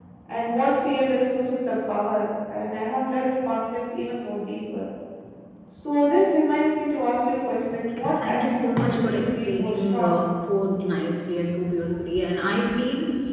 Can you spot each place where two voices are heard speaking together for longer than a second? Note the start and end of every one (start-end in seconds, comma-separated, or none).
8.2-10.2